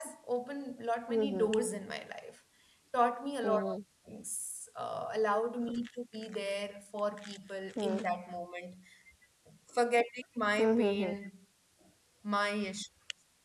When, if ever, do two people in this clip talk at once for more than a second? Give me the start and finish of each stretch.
none

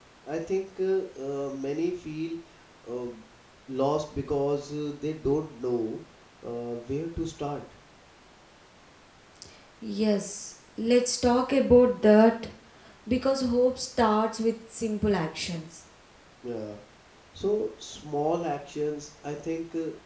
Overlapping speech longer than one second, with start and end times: none

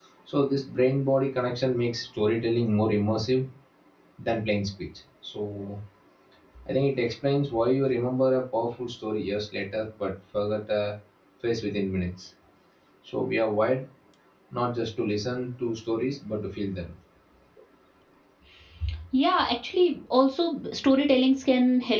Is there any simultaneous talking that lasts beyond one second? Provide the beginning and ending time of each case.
none

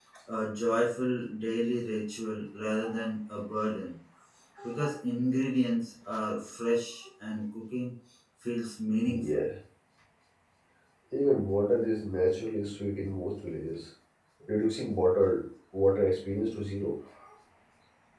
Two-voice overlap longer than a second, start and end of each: none

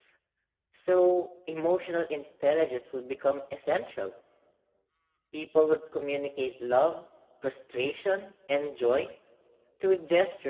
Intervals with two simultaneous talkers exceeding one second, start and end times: none

